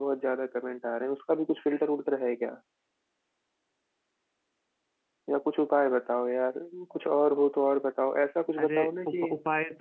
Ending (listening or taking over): taking over